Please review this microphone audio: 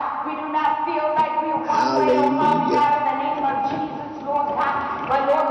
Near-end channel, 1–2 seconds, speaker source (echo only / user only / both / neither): both